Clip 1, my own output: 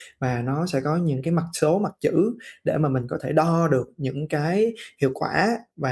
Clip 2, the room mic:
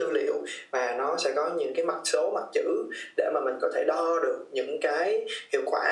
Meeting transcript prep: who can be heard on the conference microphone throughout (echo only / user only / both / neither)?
echo only